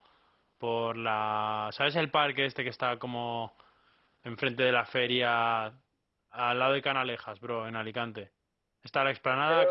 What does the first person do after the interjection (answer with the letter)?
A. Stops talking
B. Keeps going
B